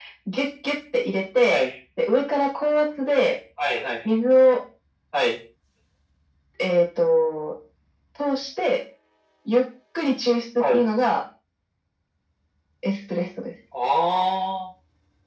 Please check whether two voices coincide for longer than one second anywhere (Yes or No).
No